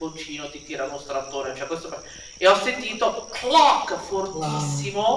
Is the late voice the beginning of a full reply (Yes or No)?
No